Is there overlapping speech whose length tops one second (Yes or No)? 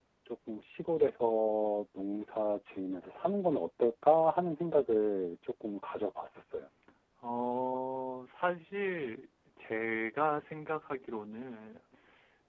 No